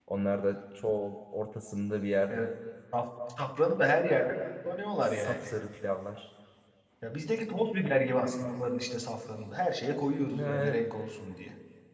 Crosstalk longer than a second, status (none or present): none